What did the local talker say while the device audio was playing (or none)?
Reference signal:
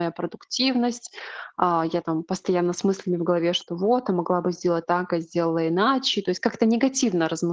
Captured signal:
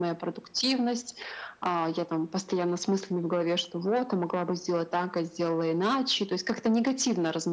none